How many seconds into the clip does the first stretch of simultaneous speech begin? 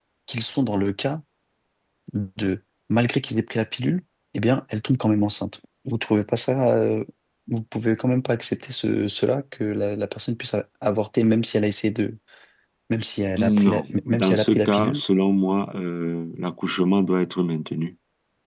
13.4 s

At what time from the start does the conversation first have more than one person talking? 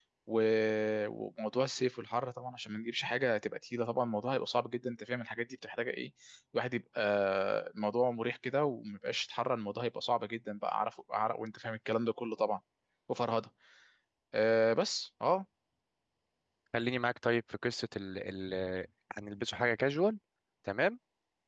none

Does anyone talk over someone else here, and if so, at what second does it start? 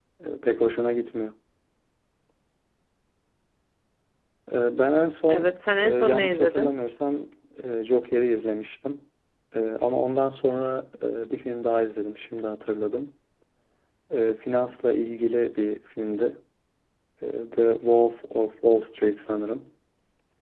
5.3 s

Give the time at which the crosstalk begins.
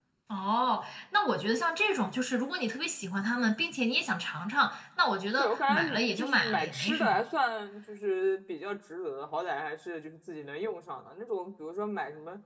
5.3 s

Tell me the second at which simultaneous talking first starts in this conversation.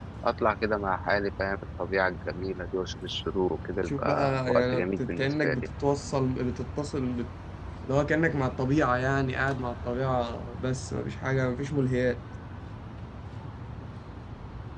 3.9 s

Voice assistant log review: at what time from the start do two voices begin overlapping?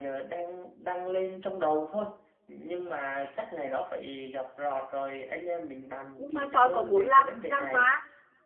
6.2 s

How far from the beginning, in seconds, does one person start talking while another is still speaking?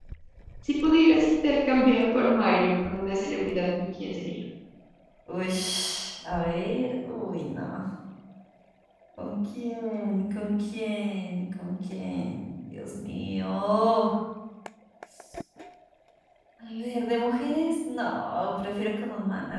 none

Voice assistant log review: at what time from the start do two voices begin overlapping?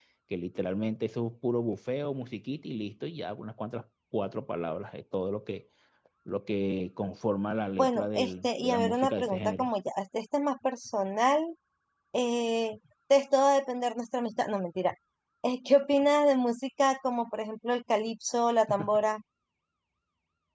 7.8 s

